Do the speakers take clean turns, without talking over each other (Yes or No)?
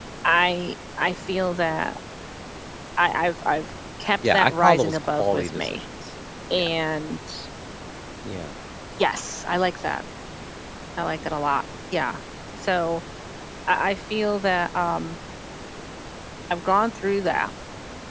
No